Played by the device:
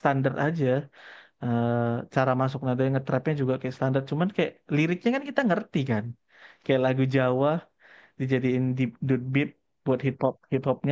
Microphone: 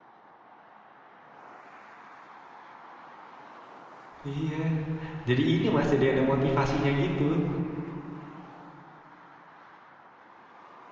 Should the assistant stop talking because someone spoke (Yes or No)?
Yes